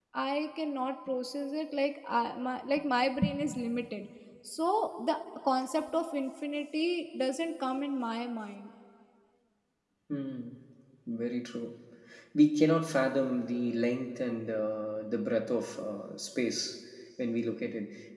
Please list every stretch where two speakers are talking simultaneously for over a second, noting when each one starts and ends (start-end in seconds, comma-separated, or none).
none